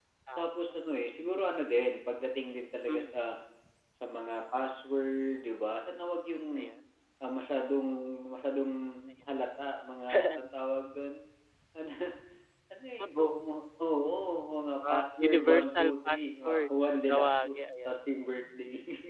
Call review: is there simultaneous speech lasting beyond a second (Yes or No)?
Yes